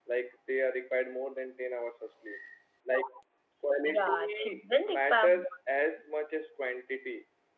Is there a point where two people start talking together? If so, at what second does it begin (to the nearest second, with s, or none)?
4 s